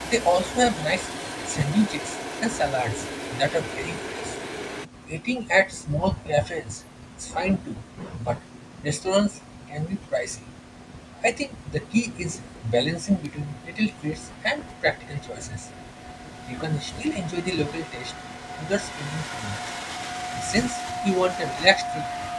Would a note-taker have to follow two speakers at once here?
No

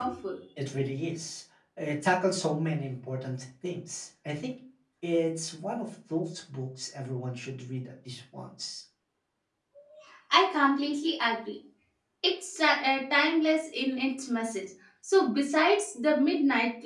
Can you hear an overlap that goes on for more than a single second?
No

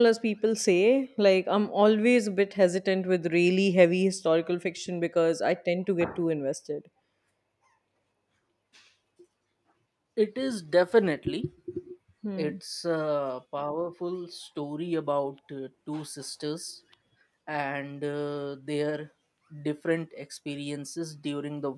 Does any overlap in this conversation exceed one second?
No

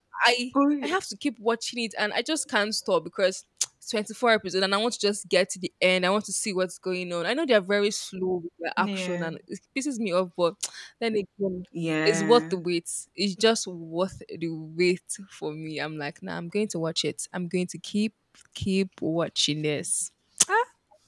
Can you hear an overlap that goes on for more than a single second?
No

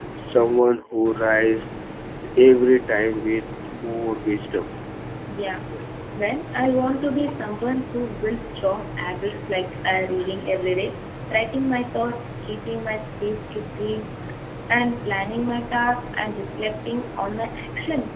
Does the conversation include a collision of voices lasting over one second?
No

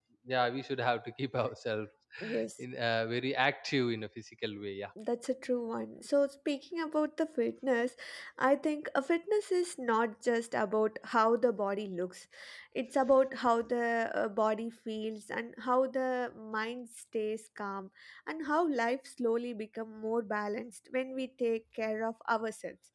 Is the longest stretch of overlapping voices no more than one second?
Yes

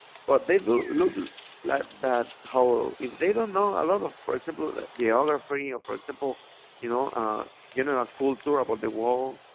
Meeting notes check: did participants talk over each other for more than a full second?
No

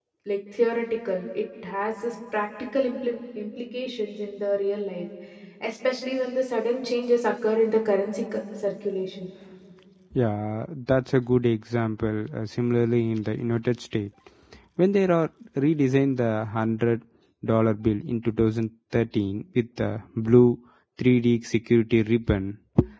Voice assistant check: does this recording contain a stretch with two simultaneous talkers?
No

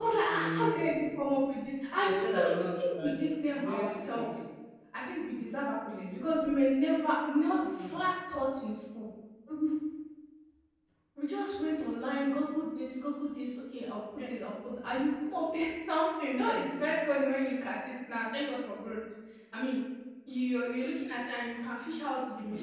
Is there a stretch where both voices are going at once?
Yes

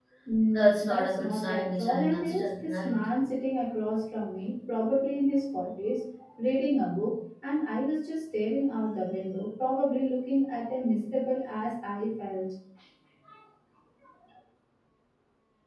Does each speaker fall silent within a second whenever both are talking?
No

